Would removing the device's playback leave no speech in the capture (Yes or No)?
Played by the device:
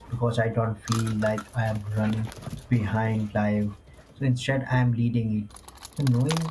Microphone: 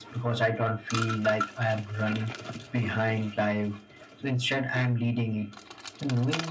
Yes